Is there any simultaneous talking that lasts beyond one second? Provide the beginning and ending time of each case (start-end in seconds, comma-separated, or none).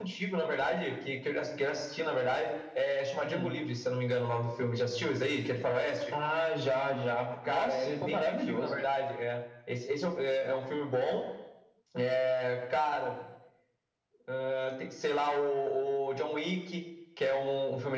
7.5-8.8